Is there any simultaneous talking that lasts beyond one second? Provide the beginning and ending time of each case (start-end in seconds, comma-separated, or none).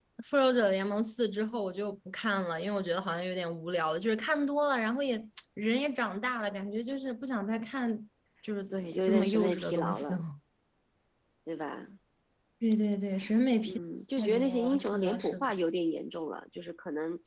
8.7-10.2, 14.2-15.5